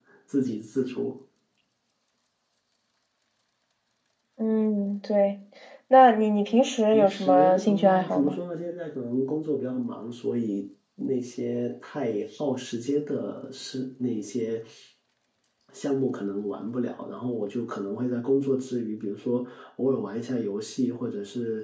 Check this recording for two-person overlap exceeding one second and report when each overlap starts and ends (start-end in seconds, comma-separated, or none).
6.9-8.4